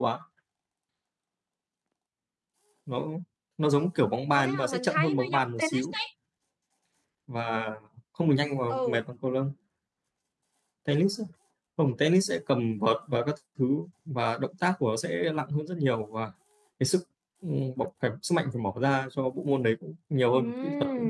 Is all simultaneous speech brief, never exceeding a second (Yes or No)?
No